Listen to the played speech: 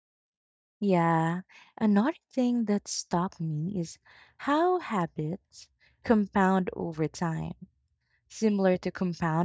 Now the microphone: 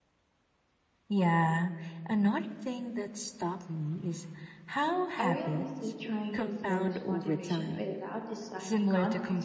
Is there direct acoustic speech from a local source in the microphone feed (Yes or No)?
Yes